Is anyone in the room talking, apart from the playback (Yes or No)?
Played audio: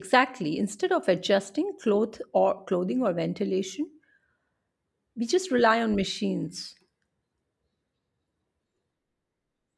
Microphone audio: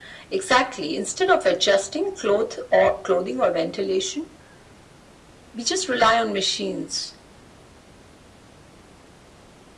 No